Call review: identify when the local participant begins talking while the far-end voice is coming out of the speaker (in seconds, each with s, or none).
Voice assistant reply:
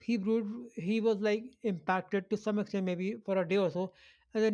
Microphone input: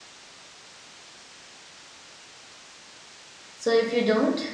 3.5 s